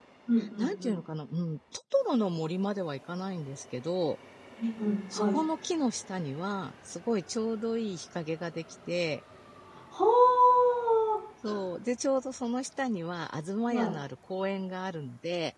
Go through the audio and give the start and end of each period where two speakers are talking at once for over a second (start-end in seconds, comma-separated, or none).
none